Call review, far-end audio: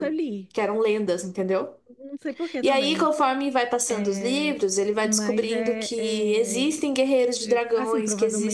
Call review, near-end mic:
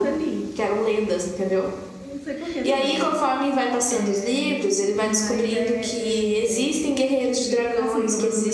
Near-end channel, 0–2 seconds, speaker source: echo only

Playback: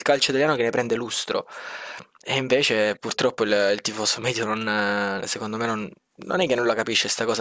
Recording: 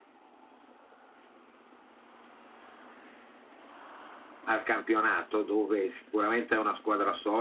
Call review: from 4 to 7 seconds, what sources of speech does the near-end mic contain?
user only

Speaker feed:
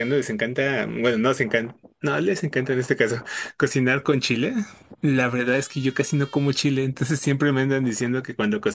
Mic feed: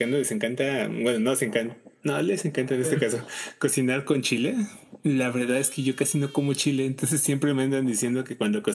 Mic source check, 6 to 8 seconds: echo only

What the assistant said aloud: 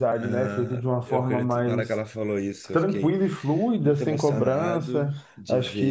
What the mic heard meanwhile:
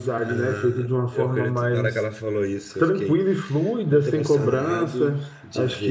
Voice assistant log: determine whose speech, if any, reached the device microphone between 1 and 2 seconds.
echo only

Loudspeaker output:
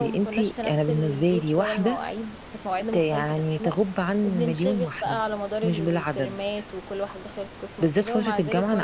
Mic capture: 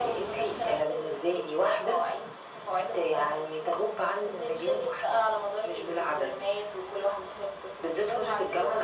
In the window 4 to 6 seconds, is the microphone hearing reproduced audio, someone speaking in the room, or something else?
echo only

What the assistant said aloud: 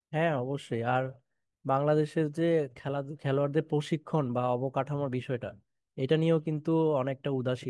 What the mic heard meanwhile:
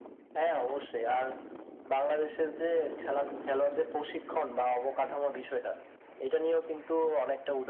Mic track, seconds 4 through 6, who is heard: echo only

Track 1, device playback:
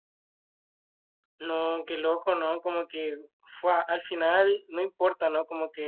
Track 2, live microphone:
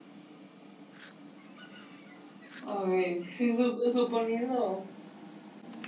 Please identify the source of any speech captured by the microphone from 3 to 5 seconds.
user only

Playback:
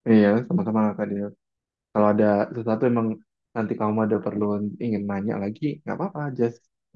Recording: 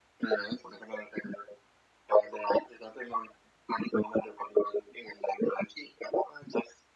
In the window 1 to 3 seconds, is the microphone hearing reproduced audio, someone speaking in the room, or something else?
echo only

